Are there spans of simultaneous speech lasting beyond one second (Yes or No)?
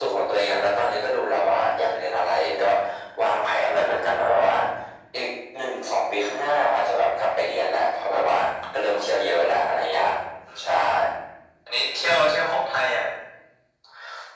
No